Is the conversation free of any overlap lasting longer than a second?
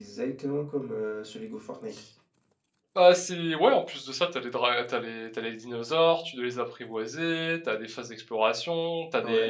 Yes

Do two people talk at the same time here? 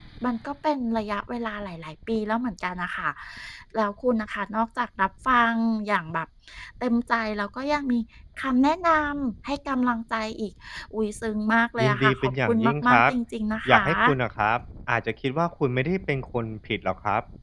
Yes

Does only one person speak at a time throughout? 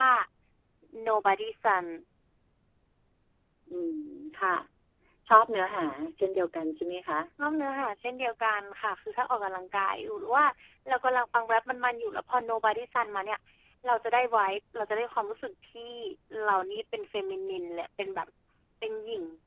Yes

